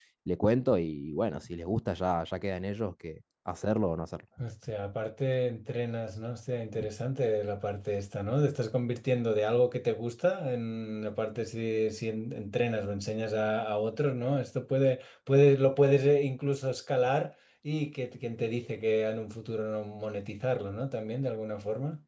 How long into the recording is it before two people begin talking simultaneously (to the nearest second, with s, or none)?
none